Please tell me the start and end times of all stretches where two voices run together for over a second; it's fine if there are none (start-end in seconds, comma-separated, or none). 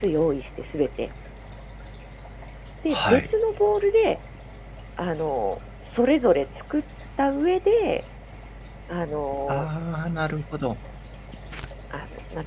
none